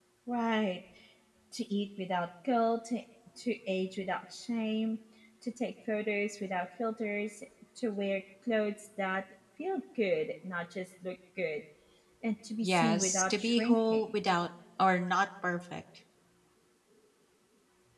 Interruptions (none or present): present